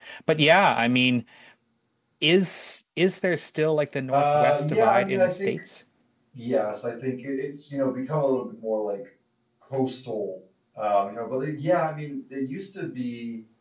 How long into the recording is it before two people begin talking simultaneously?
4 s

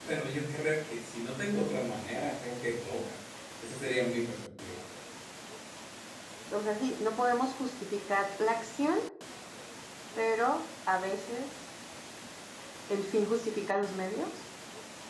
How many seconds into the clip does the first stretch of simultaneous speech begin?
none

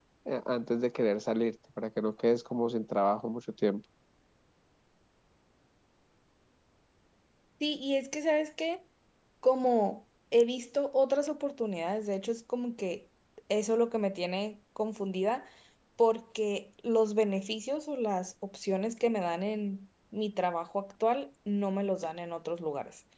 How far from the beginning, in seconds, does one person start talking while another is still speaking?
none

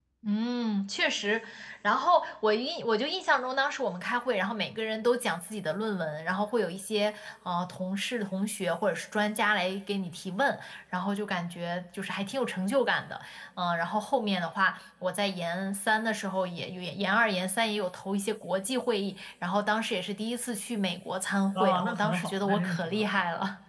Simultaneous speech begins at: 22 s

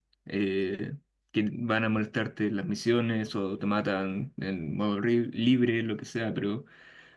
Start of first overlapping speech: none

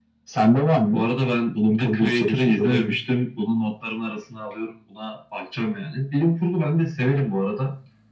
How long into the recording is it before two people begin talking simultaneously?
2 s

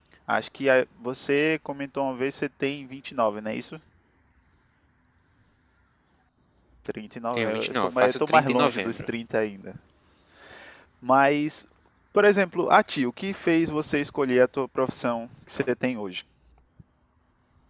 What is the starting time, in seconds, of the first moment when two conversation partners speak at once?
7 s

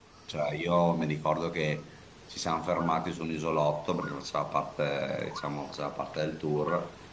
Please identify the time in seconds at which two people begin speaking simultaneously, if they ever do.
none

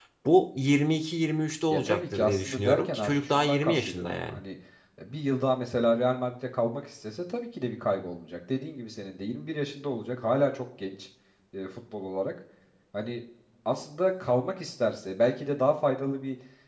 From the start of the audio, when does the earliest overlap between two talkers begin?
2 s

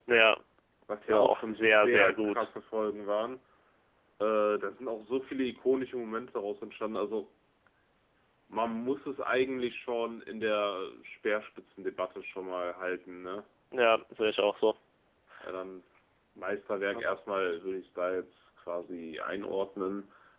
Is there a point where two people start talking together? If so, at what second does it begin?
1 s

